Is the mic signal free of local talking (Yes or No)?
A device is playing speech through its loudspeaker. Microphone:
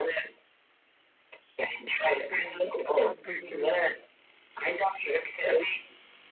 No